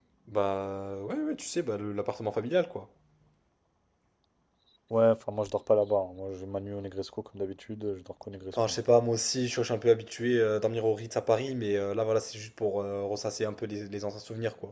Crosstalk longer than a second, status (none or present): none